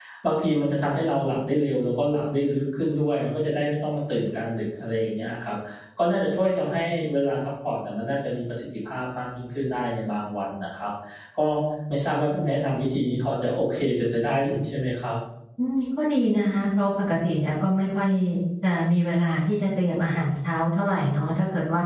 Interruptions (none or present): none